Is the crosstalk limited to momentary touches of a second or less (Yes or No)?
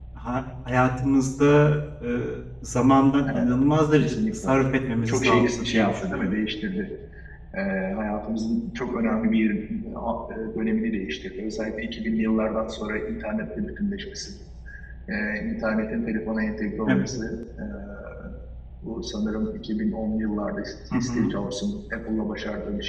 No